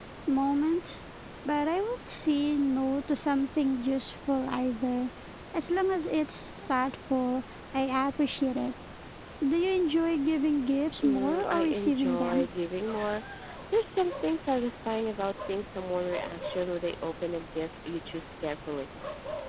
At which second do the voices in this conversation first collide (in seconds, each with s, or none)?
11.0 s